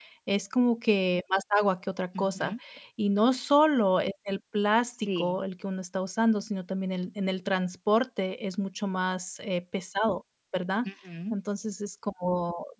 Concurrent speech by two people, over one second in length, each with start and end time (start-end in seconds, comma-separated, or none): none